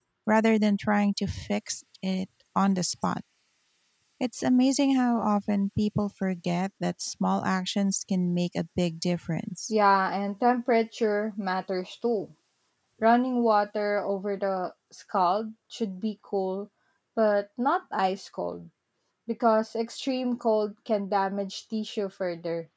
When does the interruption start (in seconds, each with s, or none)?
none